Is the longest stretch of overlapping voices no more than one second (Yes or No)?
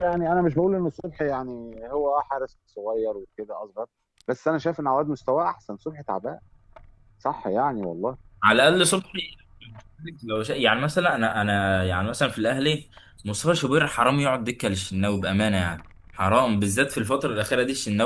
Yes